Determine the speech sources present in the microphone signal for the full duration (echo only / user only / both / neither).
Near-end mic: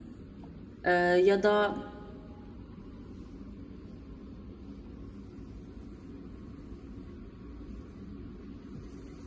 user only